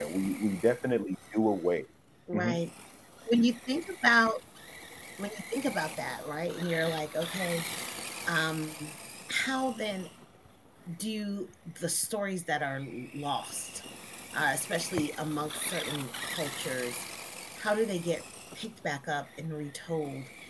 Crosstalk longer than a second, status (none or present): none